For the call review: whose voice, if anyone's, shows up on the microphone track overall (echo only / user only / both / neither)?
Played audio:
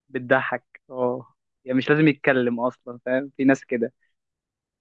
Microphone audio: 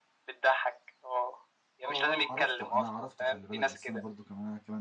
both